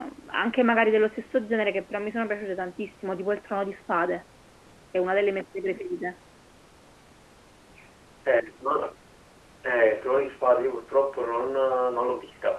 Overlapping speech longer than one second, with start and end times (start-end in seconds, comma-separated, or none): none